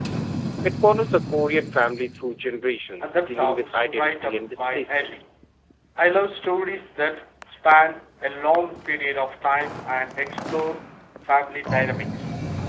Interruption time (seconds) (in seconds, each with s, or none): 3.0 s